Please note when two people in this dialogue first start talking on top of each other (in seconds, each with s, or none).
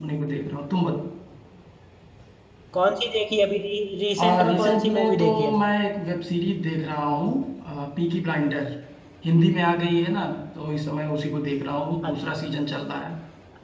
4.2 s